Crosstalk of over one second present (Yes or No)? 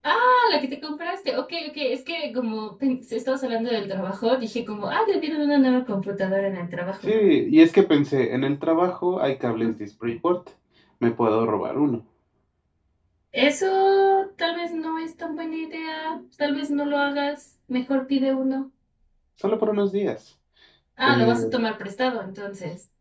No